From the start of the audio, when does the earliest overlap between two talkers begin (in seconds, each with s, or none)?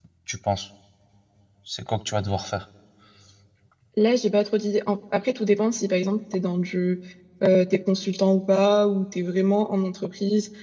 none